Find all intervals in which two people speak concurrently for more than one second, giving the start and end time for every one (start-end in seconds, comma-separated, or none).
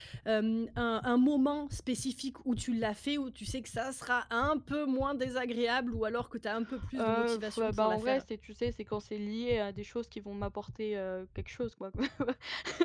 6.9-8.2